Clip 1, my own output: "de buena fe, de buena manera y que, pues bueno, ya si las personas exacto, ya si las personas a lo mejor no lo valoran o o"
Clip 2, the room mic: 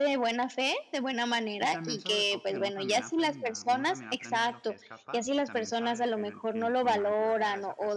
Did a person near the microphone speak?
Yes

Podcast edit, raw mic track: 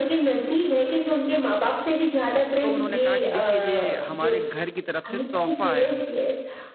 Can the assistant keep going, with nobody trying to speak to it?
No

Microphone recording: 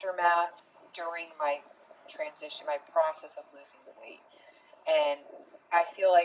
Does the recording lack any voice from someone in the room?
Yes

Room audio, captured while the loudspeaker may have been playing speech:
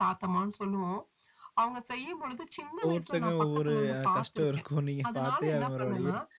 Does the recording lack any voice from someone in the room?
No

